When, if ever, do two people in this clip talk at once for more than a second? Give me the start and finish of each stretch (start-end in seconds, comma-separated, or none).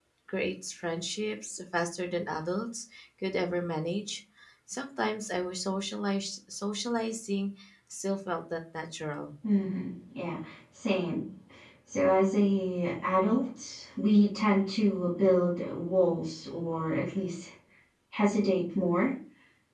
none